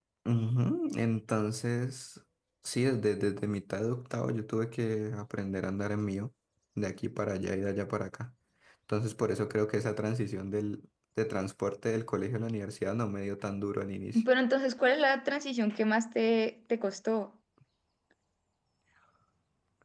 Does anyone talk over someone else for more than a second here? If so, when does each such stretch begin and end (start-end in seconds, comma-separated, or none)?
none